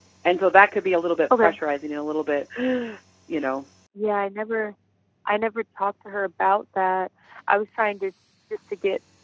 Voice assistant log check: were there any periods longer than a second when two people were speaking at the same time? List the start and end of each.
none

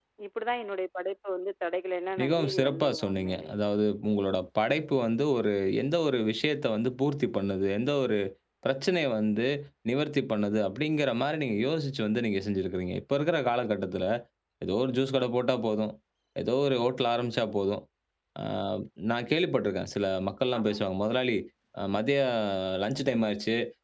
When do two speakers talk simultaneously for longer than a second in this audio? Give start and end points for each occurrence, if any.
2.2-3.5

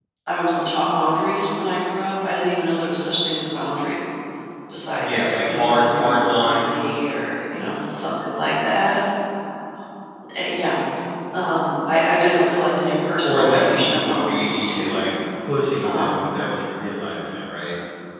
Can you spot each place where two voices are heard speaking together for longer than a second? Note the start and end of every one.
5.0-6.9, 13.2-15.0

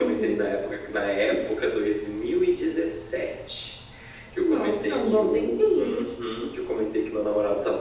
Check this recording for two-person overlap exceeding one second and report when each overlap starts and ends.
4.4-6.0

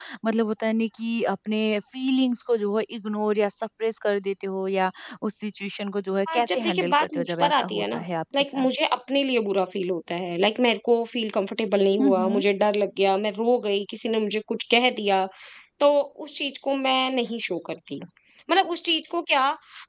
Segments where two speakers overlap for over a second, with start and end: 6.3-8.0

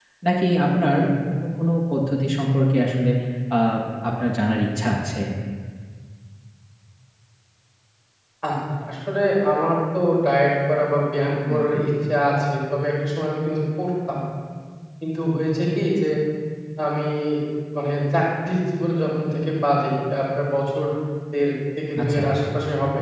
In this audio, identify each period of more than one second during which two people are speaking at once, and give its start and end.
none

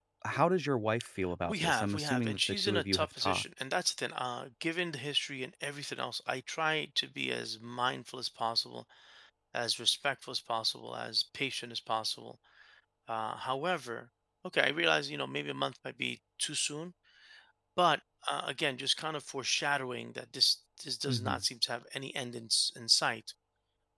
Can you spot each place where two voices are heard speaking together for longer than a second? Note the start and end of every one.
1.5-3.4

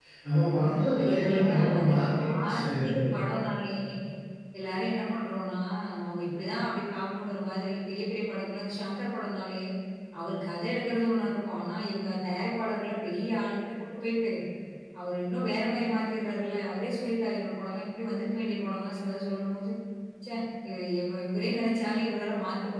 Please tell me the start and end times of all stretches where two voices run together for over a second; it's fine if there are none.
1.0-3.0

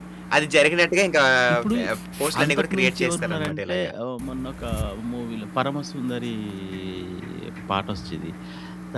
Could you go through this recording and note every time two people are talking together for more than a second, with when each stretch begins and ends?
2.4-3.9

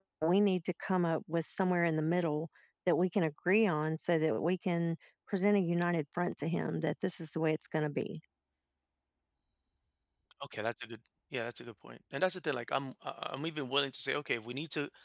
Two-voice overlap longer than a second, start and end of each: none

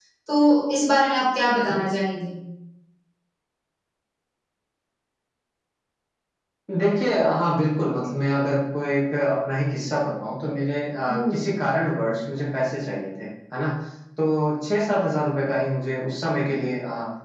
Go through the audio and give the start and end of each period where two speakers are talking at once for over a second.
none

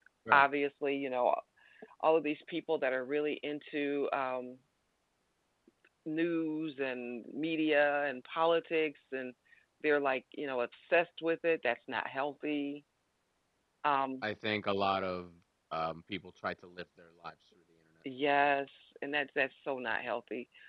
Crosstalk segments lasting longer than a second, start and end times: none

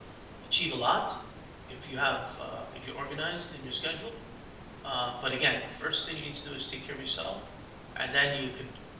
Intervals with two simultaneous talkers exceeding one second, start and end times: none

